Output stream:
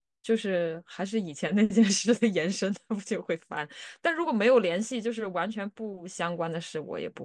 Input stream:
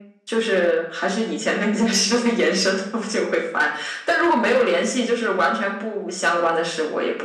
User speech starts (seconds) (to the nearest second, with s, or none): none